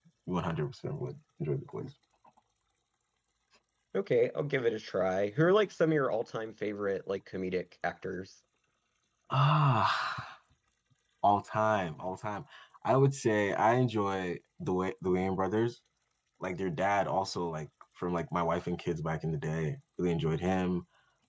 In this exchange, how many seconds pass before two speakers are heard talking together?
none

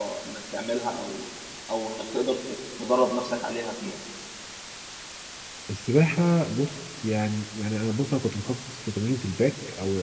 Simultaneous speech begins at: none

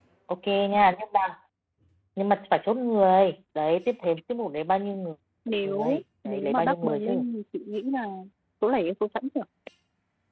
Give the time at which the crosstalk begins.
6 s

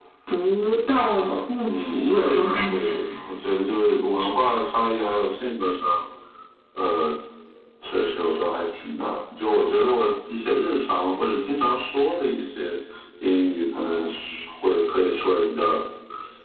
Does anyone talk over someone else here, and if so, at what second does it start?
2 s

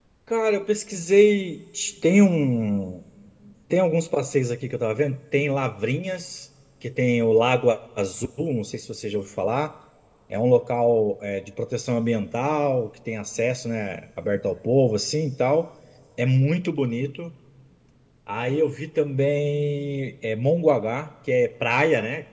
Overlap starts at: none

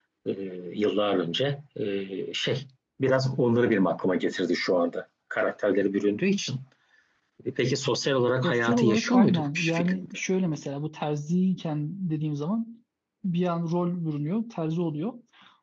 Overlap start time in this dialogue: 8 s

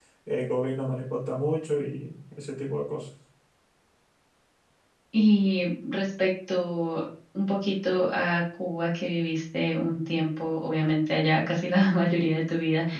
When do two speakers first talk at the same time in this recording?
none

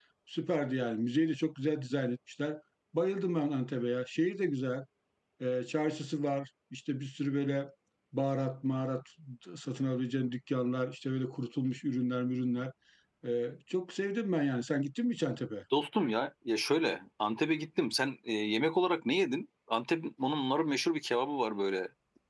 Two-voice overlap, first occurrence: none

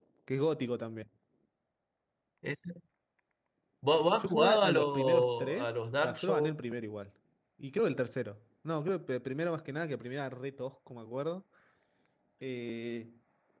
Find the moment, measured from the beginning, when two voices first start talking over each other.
4 s

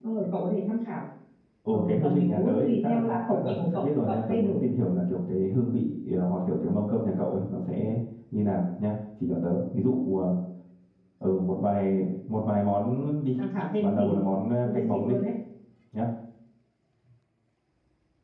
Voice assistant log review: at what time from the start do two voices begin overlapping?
2 s

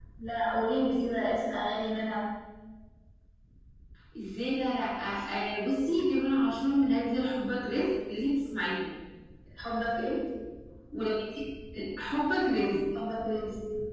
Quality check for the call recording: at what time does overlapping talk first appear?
none

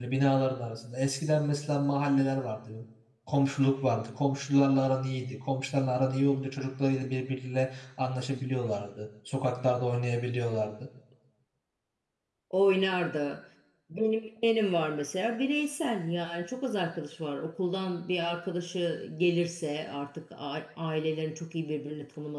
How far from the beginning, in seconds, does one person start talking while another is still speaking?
none

